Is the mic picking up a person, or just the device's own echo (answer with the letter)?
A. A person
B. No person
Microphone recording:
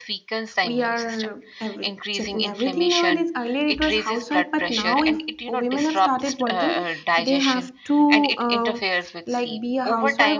A